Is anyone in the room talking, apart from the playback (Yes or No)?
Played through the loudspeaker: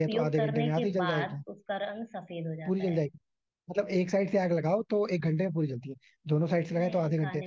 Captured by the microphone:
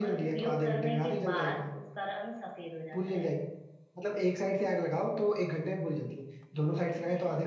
No